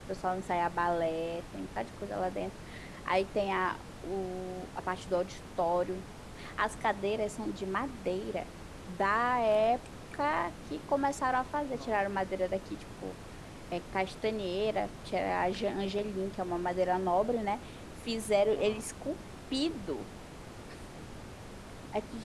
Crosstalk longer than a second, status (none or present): none